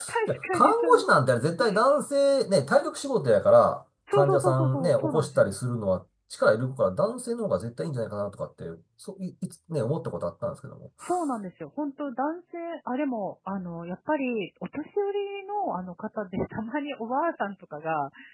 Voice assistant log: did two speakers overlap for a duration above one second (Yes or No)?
Yes